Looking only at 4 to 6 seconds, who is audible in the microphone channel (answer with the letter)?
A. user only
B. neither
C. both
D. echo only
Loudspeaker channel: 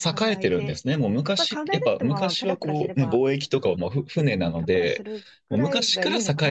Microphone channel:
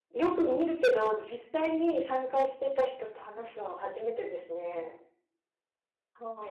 A